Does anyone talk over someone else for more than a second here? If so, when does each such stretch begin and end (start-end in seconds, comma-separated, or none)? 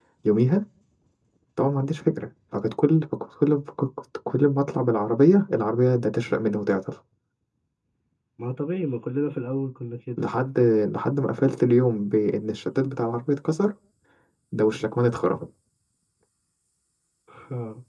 none